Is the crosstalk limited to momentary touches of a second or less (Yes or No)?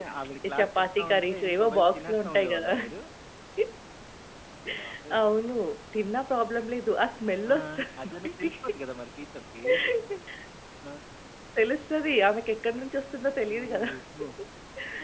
No